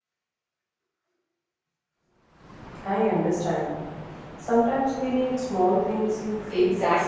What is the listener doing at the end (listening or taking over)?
taking over